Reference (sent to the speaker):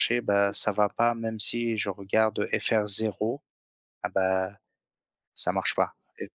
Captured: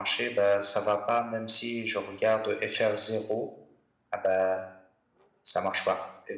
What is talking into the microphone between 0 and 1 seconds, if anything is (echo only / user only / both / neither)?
echo only